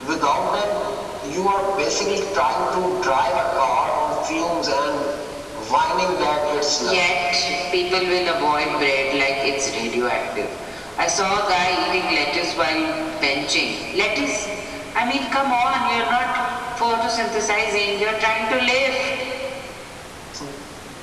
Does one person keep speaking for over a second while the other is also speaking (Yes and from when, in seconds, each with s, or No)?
No